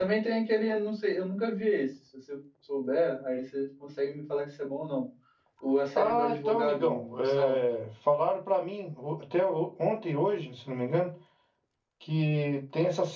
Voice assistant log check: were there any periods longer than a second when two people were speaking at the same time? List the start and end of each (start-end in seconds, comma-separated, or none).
6.0-7.6